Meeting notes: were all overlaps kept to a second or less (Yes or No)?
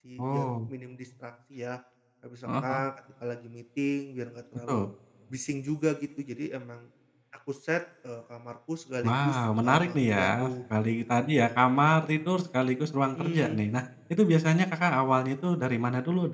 No